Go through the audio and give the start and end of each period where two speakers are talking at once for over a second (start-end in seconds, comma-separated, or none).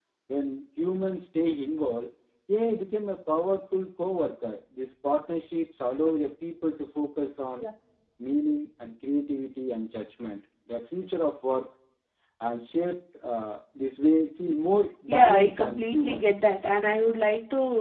15.1-16.3